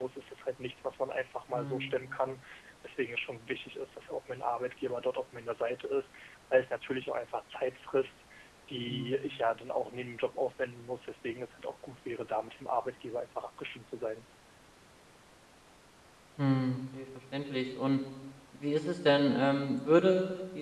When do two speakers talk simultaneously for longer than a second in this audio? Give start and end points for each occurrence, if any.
none

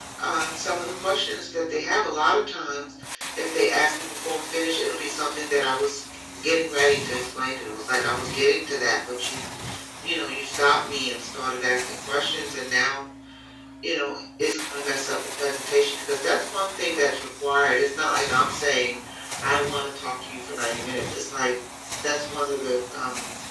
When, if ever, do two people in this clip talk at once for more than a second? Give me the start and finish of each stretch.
none

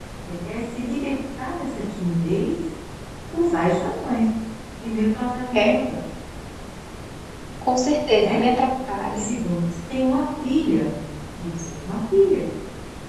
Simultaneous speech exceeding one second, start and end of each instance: none

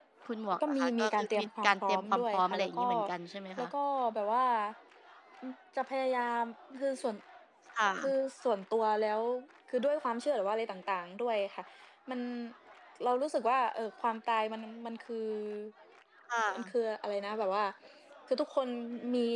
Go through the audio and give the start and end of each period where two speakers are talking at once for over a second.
0.6-2.8

